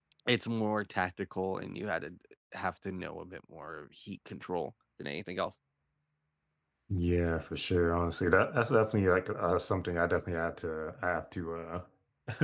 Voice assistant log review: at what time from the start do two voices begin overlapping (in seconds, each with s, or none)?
none